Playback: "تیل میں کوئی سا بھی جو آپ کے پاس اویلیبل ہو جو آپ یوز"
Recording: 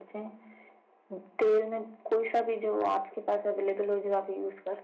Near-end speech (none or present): none